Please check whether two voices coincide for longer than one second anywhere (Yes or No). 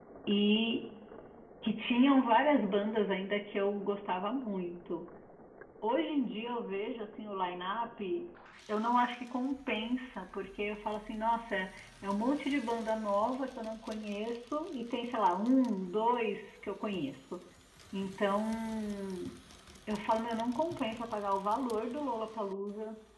No